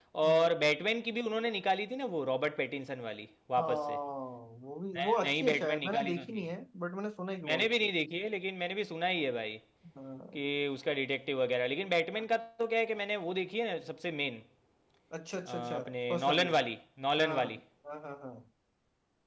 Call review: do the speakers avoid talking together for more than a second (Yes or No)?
No